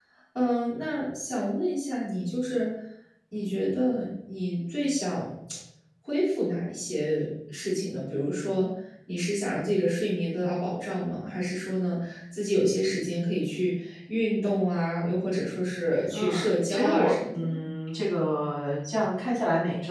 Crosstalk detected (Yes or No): Yes